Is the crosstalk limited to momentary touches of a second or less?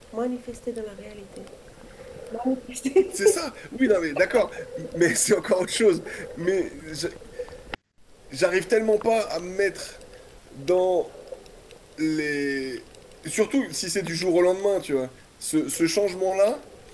Yes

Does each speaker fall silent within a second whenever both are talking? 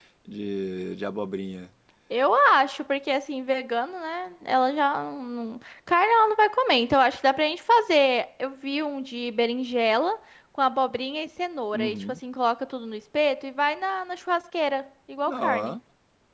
Yes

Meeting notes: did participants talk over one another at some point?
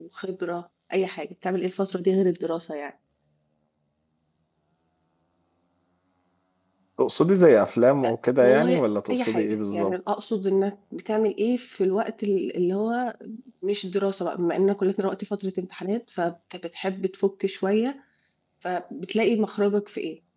Yes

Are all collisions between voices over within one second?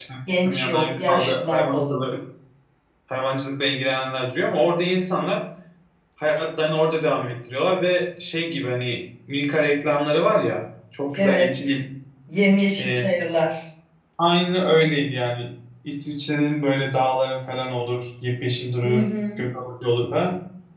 No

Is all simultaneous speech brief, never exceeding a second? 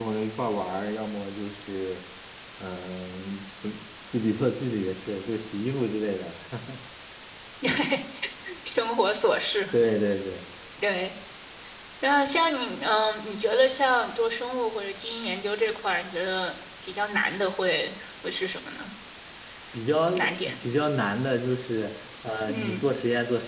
Yes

